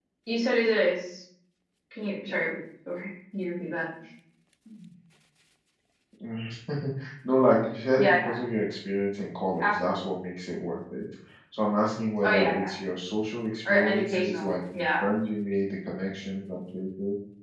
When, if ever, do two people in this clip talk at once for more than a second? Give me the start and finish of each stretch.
13.7-15.1

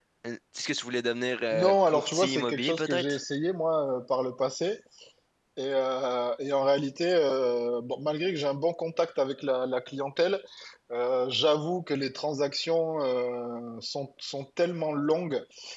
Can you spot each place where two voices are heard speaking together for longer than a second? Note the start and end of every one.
1.5-3.2

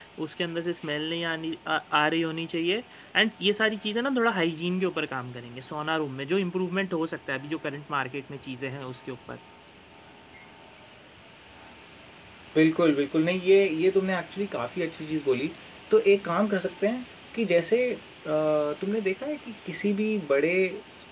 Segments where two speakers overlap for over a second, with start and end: none

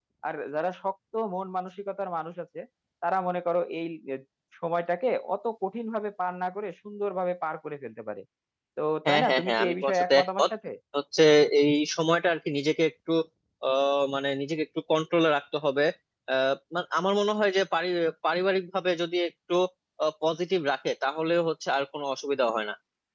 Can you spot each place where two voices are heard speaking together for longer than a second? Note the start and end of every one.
9.0-10.5

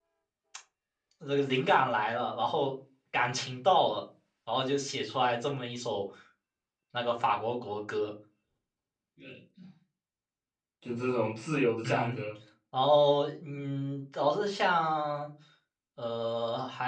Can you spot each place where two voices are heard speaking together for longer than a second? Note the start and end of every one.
none

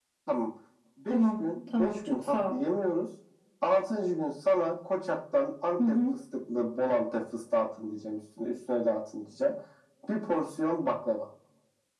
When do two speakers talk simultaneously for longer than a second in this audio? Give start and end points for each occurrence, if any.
1.1-2.5

